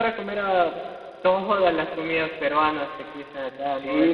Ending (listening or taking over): taking over